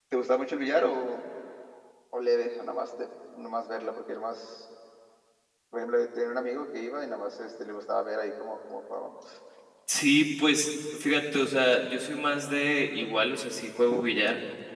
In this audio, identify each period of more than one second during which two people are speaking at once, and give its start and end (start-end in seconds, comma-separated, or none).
none